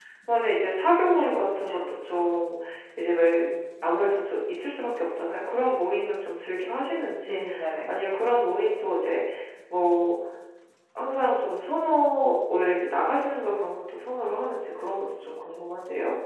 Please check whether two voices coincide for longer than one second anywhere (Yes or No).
Yes